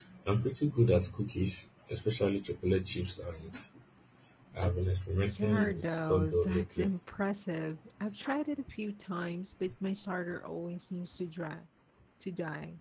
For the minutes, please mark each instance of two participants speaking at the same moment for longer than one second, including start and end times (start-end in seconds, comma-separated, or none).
5.3-6.9